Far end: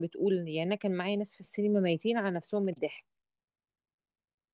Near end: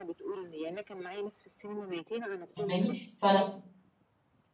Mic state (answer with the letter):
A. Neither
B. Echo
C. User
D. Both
D